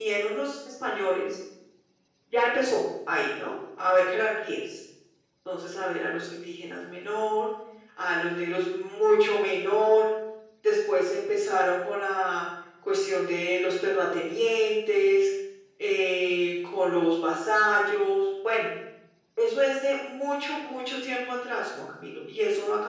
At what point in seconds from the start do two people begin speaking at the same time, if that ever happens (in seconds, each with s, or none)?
none